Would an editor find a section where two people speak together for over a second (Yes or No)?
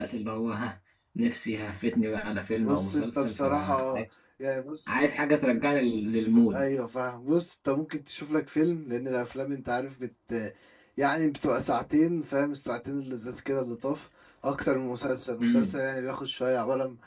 Yes